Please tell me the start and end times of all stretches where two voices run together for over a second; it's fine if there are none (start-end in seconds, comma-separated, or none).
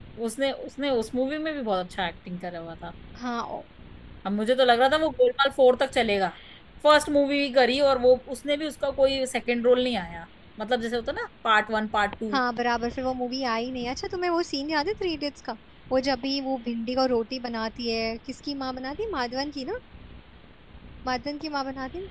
none